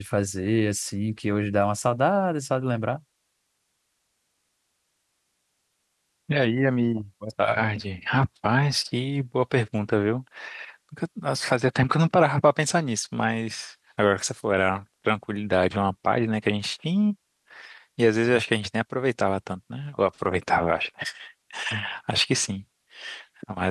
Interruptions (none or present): none